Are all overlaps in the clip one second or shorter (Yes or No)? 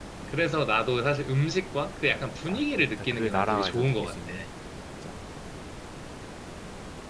No